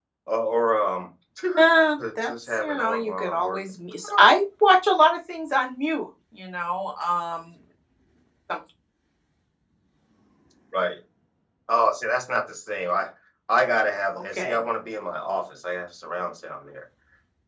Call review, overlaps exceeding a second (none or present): present